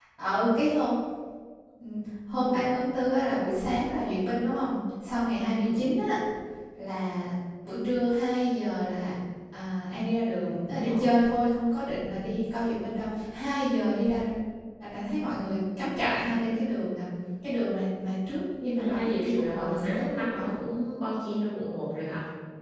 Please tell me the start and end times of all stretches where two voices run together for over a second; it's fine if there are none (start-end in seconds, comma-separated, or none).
18.6-20.5